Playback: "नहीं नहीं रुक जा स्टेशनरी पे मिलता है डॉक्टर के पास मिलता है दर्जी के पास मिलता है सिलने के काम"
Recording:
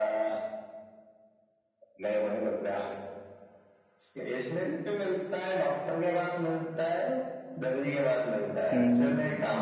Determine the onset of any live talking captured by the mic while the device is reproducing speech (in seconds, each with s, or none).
8.7 s